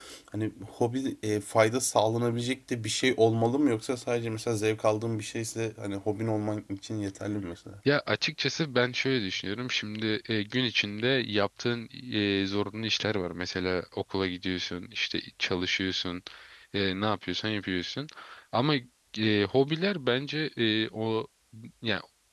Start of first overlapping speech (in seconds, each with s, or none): none